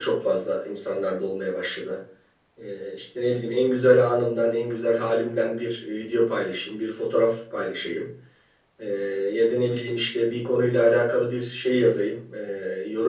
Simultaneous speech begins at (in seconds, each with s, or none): none